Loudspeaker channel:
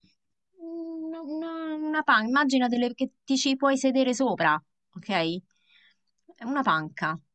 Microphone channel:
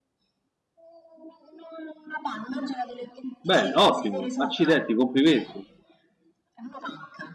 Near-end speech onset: 3.4 s

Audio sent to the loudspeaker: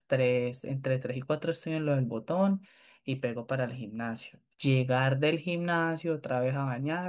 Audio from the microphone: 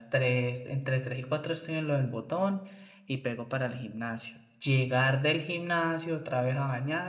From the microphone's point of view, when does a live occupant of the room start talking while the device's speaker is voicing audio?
none

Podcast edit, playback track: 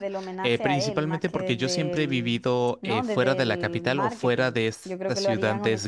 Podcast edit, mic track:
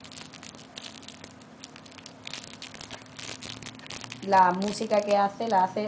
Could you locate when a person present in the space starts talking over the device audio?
4.2 s

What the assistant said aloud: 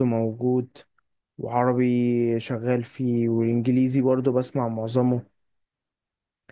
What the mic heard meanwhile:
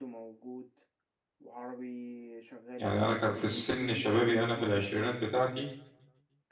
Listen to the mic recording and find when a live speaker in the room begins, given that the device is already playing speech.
2.8 s

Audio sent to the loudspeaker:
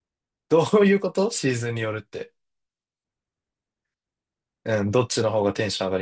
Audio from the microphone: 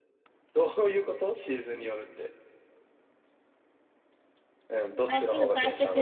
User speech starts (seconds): 5.0 s

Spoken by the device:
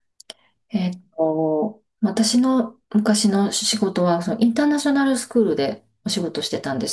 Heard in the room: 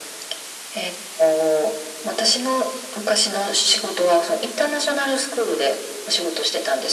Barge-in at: none

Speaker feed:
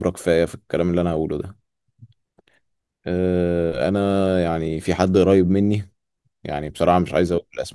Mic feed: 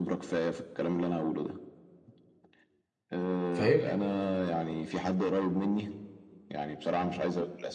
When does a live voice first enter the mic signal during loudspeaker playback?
3.5 s

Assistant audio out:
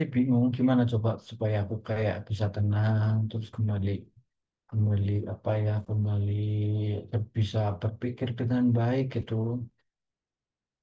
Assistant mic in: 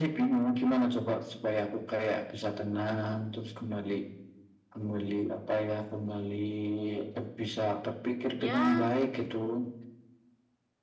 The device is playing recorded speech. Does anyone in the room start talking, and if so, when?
8.4 s

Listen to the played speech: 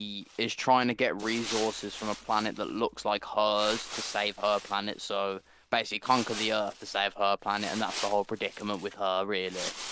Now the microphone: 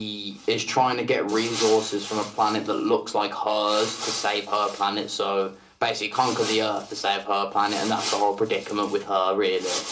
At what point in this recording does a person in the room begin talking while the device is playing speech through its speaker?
none

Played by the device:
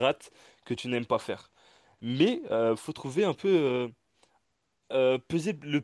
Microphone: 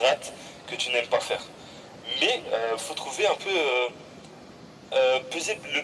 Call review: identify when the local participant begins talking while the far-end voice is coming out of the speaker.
none

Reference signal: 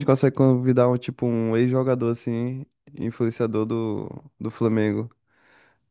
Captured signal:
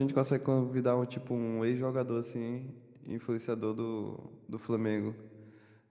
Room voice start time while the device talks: none

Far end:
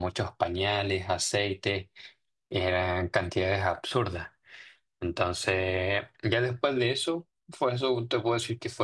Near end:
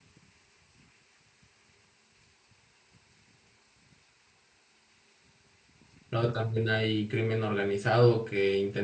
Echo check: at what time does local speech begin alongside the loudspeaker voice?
6.1 s

